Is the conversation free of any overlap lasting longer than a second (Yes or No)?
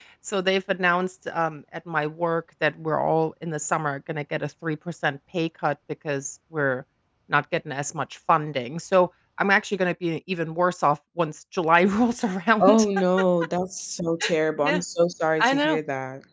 Yes